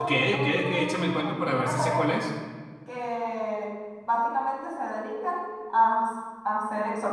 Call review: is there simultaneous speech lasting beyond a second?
Yes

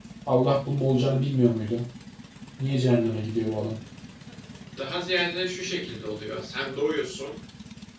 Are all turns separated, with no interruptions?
Yes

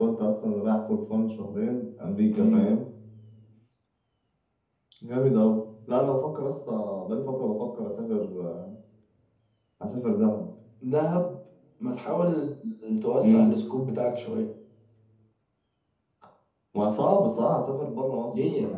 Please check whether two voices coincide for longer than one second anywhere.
No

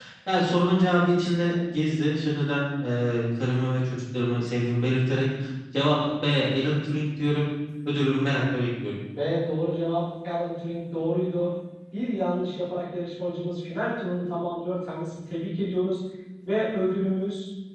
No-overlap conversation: Yes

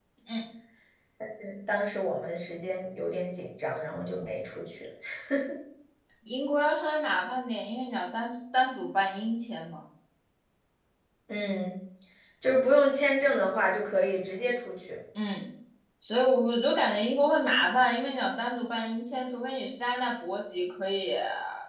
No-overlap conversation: Yes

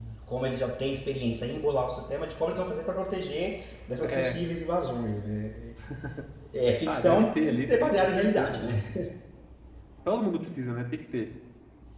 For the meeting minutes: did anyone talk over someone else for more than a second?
Yes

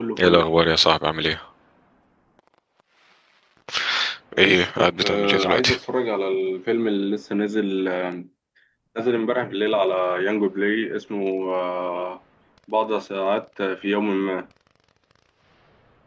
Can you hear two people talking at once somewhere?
Yes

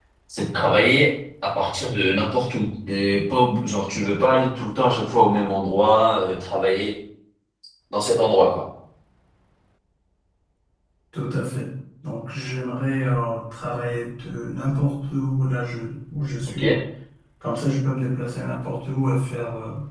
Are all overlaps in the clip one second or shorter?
Yes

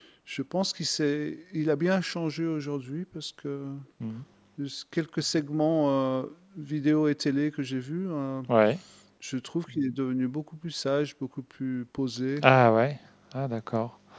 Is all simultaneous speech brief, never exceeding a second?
Yes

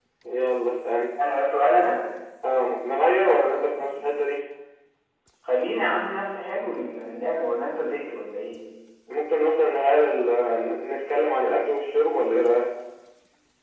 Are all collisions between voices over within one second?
Yes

